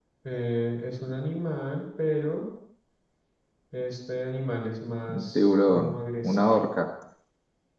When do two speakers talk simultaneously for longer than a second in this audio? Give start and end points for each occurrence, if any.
5.1-6.7

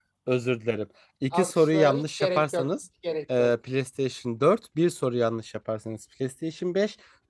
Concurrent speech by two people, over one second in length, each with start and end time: 1.3-2.7

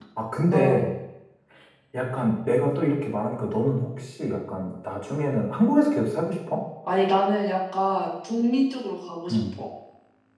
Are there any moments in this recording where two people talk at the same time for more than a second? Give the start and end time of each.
none

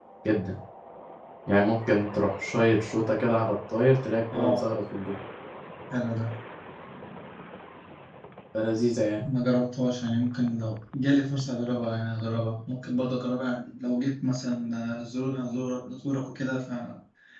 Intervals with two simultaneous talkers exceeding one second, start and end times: none

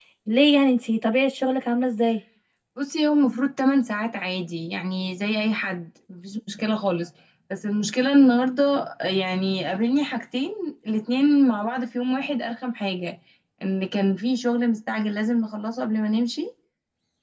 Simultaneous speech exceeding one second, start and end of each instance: none

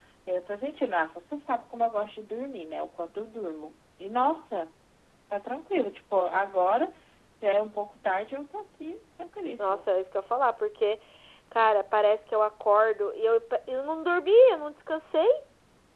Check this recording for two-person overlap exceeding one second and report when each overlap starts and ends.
none

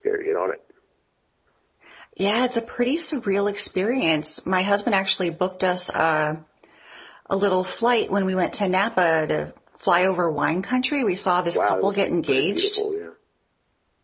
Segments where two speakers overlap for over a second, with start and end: 11.5-12.8

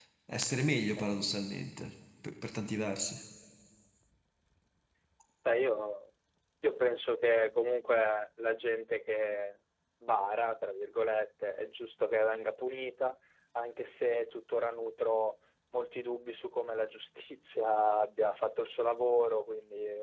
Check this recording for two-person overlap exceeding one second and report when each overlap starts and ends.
none

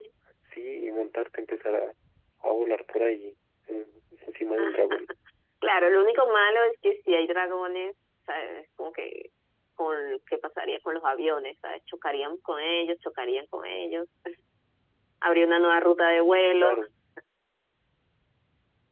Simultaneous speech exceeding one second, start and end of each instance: none

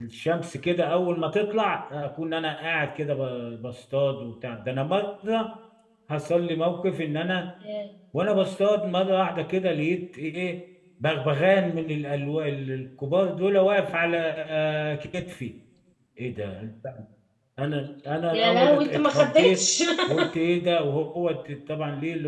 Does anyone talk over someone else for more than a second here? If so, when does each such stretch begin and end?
18.3-19.6

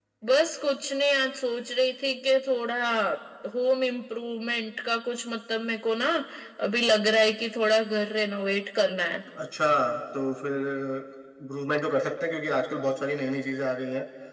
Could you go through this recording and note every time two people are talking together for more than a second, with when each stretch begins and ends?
none

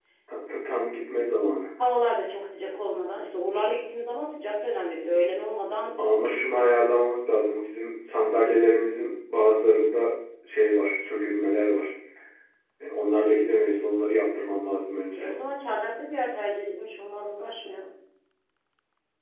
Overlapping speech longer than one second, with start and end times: none

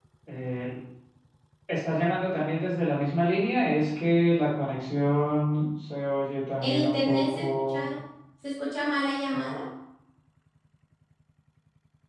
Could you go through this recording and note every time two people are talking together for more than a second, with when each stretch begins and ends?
6.6-7.8

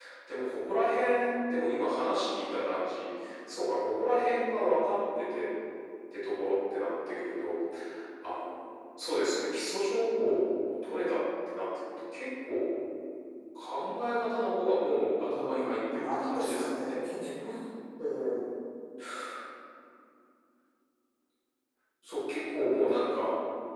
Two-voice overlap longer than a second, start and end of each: 15.2-17.0

